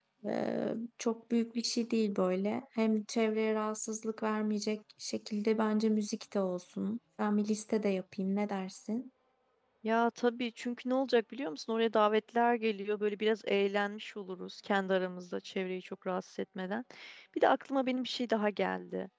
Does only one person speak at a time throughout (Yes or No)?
Yes